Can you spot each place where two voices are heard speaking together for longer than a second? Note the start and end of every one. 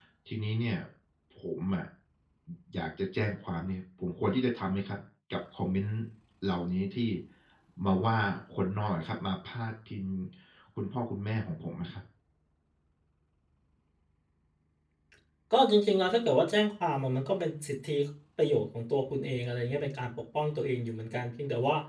none

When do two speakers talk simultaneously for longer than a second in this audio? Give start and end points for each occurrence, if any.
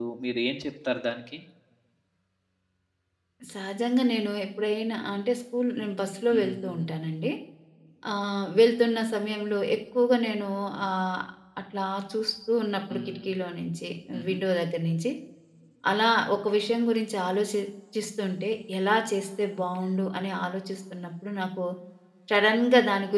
none

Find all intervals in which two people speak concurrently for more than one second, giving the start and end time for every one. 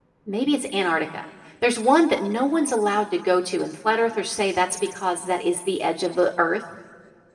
none

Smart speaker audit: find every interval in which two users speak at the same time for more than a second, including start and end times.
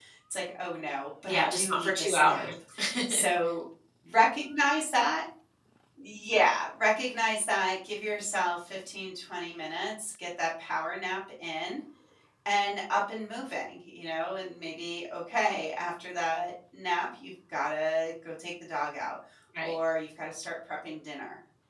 1.3-2.5

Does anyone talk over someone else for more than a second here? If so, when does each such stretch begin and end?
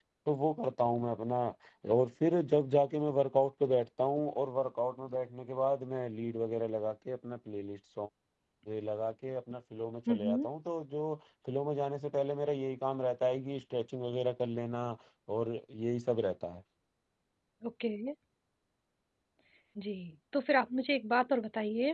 none

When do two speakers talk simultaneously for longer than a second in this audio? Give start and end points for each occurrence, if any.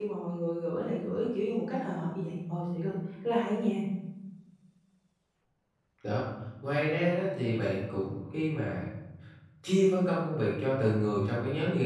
none

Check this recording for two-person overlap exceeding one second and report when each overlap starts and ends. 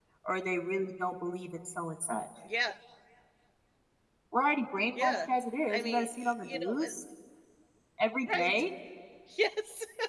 5.7-6.9

